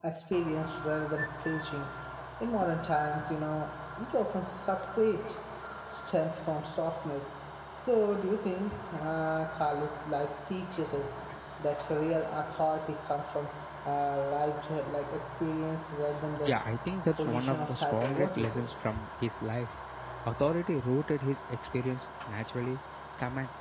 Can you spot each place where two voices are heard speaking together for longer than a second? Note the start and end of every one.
17.1-18.7

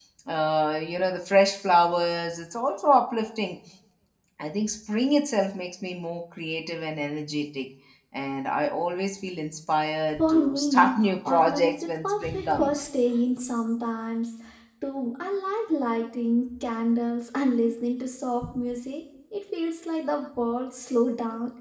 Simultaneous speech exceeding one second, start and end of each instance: 10.2-12.9

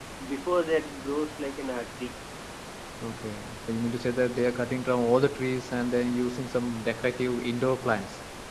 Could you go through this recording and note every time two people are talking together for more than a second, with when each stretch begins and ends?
none

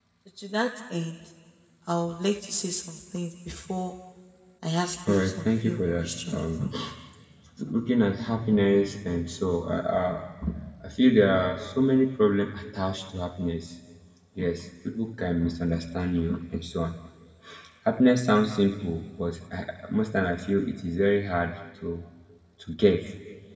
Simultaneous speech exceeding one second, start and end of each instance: 5.1-6.4

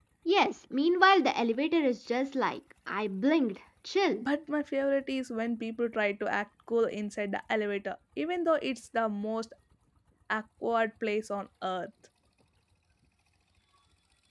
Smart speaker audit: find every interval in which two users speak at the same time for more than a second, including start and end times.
none

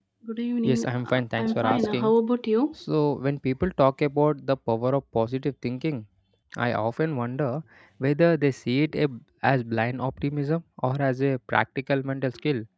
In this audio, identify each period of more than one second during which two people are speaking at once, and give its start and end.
0.6-2.1

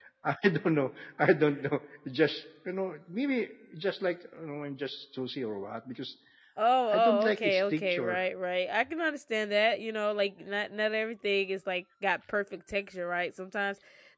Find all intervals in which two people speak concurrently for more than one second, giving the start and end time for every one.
6.9-8.2

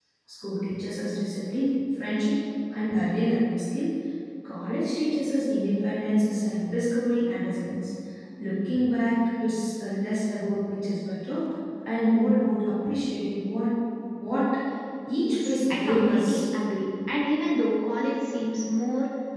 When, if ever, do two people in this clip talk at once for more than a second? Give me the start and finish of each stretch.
15.2-16.4

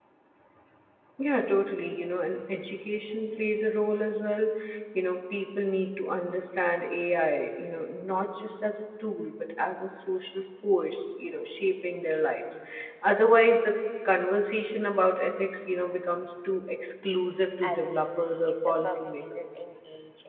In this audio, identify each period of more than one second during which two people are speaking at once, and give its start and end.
17.6-19.4

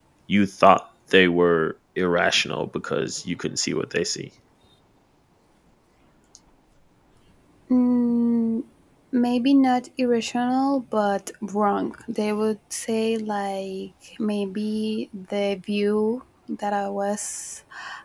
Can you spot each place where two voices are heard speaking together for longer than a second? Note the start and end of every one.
none

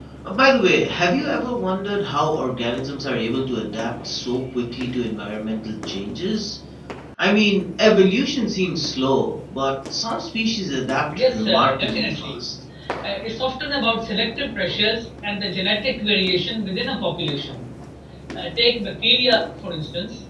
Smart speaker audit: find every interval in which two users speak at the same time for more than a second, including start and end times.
11.1-12.4

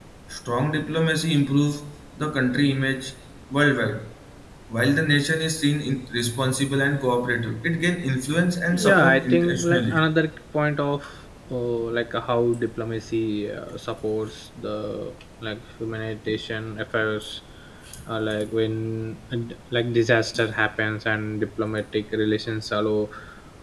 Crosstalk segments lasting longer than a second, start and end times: 8.7-10.1

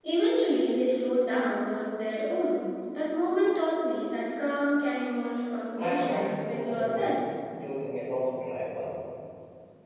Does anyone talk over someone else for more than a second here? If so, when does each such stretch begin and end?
5.8-7.2

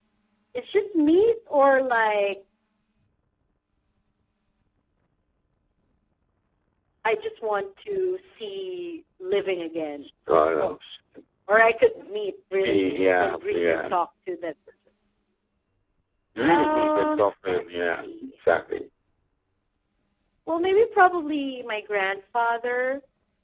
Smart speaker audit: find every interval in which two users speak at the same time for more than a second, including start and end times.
12.6-13.9, 16.4-18.2

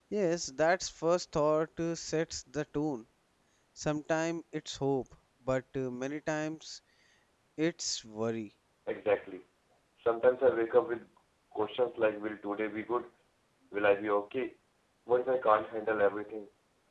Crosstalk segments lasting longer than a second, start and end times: none

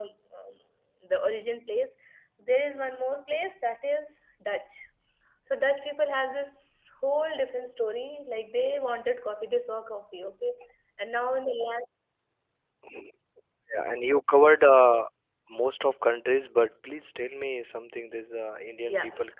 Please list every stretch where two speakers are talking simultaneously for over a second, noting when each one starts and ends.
none

